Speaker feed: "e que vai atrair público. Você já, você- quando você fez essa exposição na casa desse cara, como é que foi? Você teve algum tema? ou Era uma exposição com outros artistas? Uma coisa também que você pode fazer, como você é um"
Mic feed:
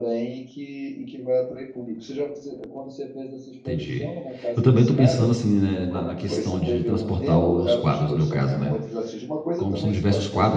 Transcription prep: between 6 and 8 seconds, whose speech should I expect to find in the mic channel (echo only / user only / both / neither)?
both